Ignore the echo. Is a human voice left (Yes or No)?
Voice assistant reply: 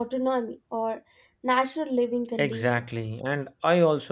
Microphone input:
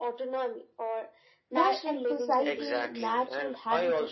Yes